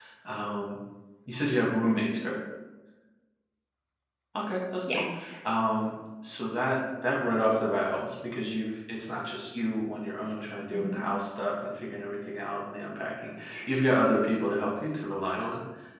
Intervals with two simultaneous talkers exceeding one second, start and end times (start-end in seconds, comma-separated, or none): none